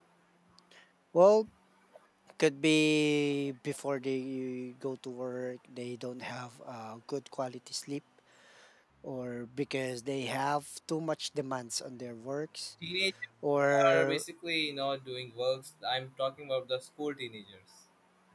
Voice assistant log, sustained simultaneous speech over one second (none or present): none